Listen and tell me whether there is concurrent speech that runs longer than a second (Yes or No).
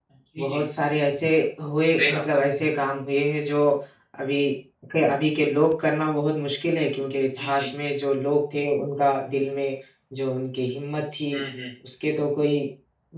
No